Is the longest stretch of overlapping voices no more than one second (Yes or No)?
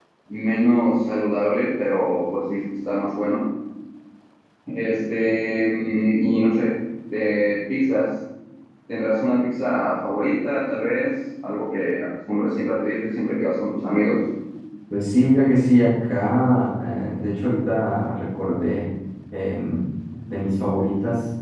Yes